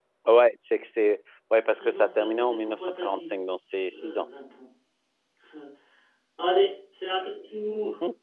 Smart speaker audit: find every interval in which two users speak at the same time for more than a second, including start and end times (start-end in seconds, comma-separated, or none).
1.8-3.3